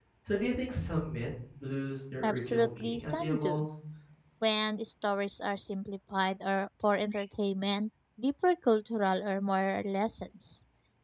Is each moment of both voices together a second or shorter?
No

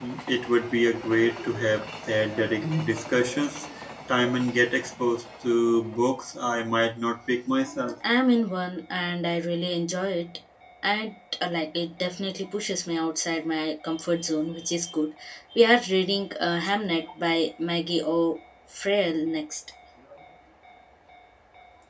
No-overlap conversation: Yes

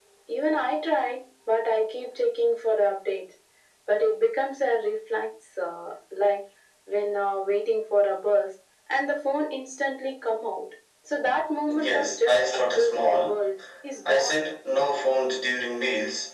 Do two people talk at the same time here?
Yes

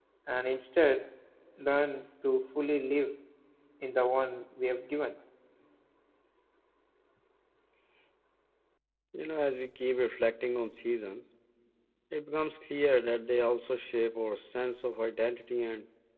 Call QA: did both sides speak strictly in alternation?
Yes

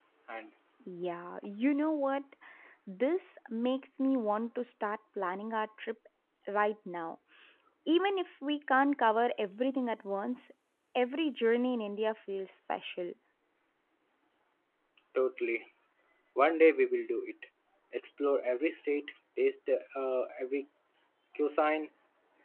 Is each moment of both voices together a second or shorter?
Yes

